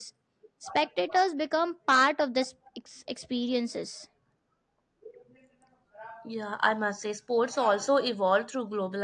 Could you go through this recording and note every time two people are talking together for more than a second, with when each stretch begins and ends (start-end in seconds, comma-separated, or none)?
none